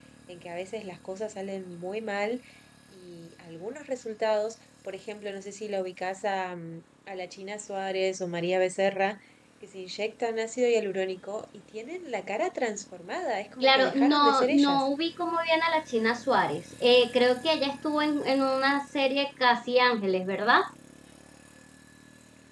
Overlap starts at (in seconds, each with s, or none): 13.6 s